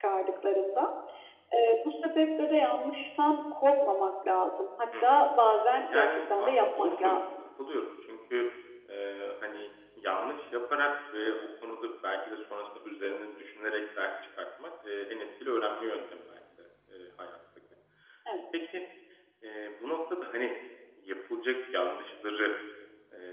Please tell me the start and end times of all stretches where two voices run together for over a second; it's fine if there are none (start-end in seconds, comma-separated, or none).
5.8-7.2